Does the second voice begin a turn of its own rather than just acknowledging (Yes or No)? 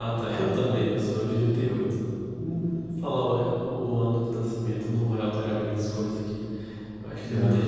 No